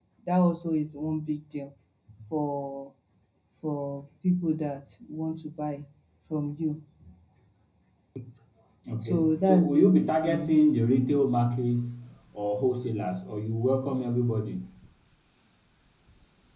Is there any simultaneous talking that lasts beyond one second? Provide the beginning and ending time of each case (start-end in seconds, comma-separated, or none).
9.0-10.5